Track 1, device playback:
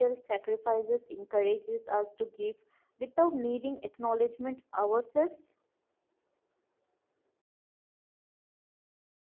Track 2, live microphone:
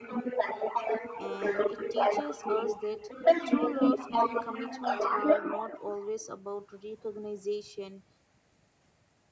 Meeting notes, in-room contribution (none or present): present